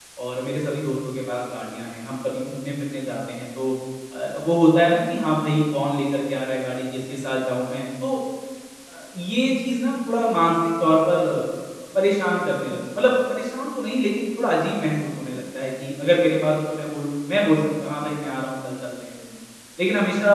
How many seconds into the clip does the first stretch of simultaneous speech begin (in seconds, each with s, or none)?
none